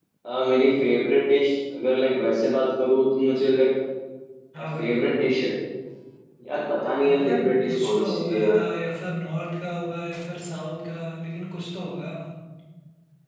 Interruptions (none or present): present